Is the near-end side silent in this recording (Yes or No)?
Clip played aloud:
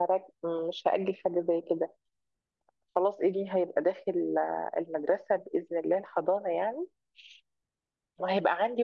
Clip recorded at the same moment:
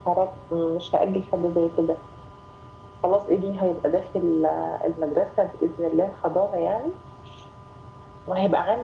Yes